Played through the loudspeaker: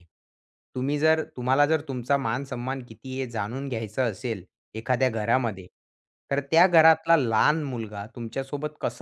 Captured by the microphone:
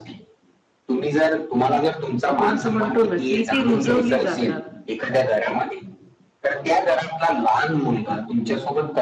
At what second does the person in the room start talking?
2 s

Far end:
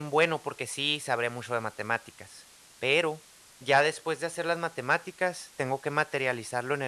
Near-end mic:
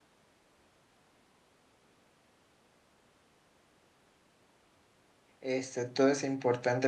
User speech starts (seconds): 5 s

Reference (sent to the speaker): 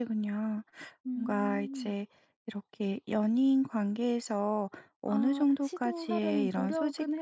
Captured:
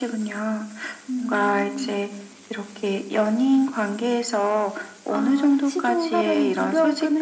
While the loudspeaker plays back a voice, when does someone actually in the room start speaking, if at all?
none

